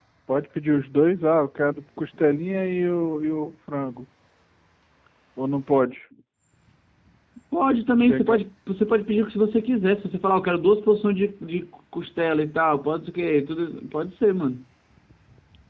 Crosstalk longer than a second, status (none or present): none